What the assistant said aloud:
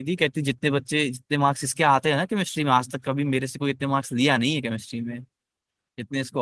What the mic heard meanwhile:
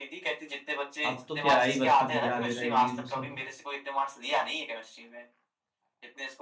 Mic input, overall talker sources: both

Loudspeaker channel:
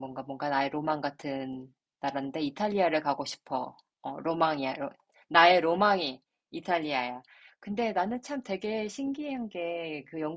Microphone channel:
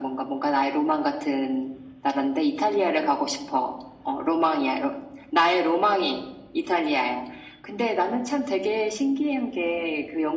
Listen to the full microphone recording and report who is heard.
echo only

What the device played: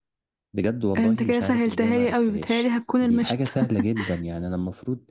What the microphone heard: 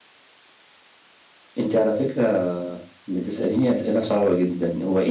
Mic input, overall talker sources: user only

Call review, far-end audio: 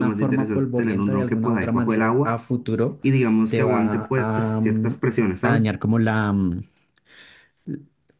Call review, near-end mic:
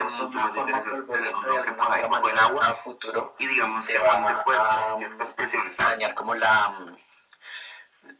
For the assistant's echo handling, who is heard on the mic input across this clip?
echo only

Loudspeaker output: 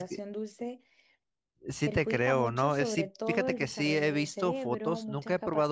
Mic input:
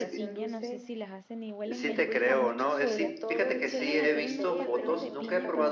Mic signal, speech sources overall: both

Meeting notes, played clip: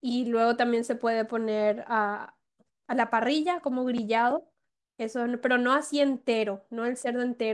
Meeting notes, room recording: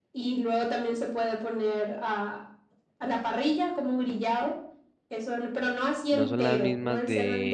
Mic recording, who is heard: both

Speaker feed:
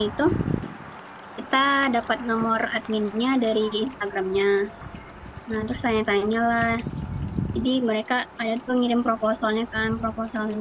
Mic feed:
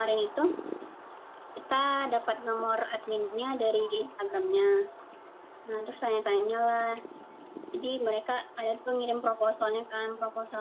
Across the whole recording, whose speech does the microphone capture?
echo only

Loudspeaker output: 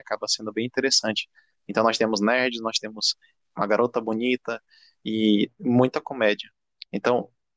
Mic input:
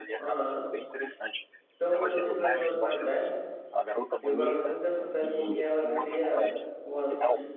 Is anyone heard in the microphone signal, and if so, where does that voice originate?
both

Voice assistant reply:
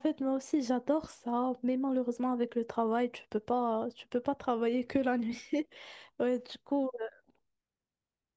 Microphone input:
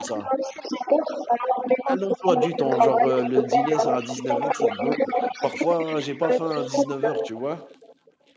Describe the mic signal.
both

